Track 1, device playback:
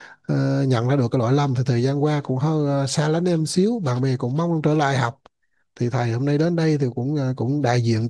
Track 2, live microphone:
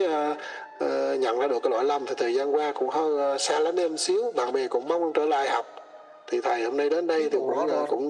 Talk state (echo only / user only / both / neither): both